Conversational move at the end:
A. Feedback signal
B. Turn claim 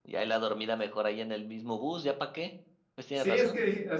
B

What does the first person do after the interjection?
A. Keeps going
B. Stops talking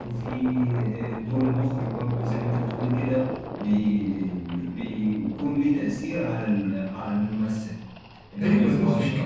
B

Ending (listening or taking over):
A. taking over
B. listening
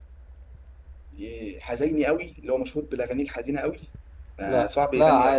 A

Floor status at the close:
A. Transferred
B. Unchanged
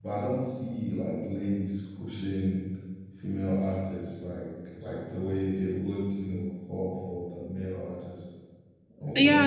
A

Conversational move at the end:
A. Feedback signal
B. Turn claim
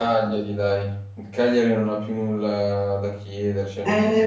B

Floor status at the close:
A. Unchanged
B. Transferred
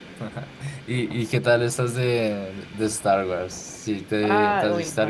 B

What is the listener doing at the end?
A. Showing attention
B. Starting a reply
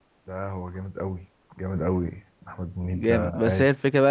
B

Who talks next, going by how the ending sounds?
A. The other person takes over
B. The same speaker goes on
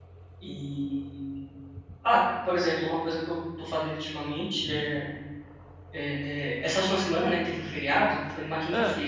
B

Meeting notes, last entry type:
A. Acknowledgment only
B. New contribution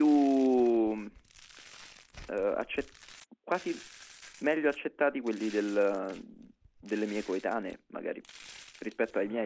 B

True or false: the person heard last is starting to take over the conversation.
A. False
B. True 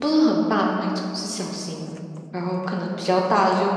A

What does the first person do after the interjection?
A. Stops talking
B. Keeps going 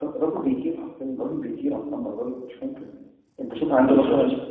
B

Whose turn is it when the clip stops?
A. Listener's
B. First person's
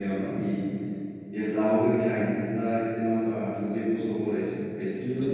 A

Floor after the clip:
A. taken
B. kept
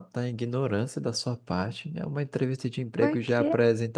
B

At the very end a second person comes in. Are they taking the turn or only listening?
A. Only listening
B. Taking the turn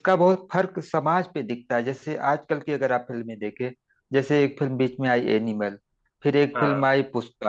A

